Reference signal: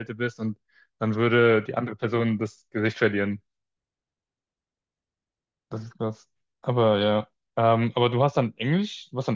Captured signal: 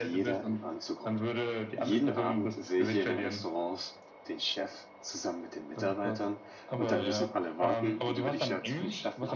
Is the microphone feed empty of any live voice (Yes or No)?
No